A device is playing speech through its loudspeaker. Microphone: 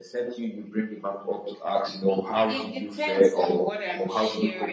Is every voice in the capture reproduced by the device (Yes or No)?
Yes